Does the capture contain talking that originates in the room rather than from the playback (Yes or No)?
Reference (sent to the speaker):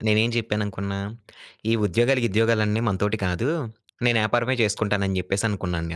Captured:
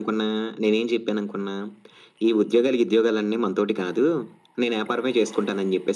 No